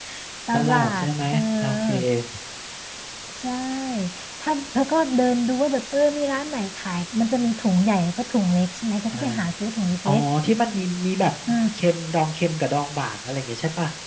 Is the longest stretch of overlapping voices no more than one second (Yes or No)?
No